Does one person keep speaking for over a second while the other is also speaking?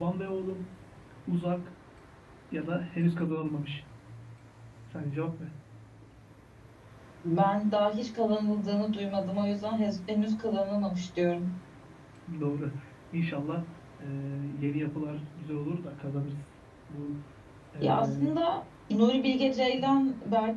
No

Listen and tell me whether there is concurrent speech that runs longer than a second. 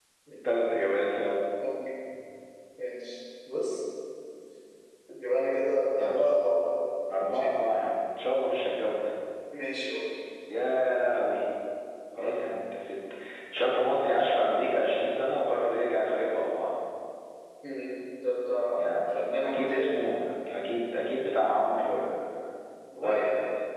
Yes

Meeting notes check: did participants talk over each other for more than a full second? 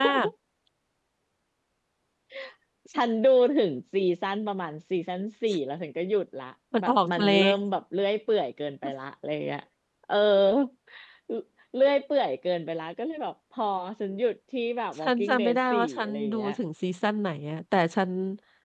Yes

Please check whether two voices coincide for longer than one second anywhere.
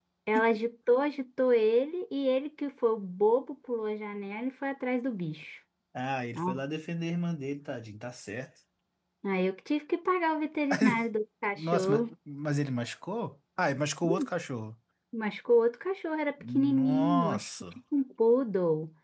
Yes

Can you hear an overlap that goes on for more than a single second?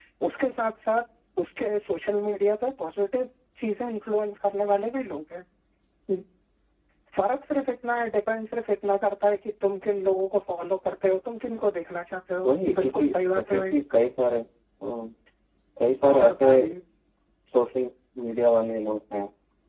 Yes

